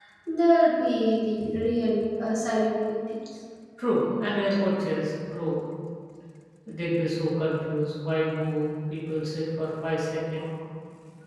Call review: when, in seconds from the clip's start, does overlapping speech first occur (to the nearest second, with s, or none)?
none